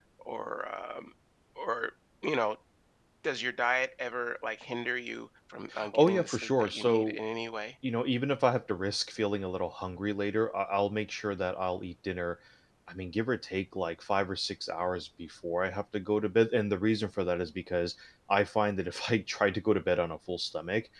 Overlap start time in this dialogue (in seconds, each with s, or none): 5.7 s